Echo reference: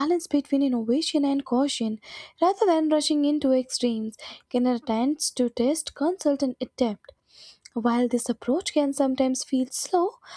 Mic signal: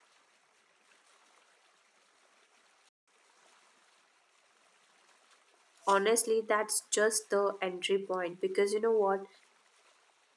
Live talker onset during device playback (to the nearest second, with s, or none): 6 s